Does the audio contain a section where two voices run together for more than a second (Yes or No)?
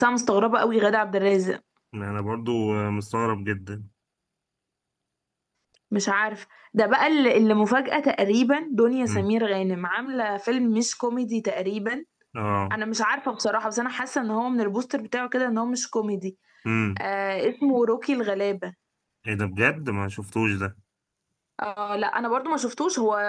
No